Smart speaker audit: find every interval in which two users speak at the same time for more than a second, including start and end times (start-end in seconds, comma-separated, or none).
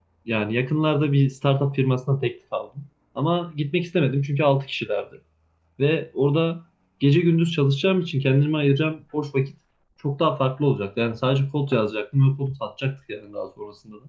none